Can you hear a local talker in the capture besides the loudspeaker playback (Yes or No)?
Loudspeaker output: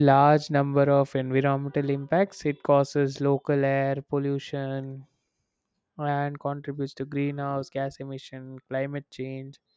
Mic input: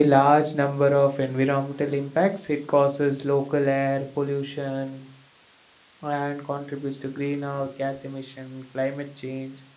No